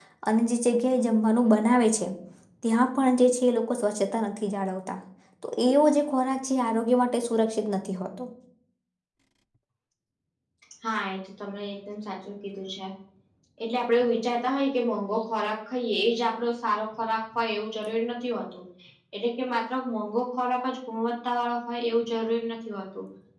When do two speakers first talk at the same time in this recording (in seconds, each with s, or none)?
none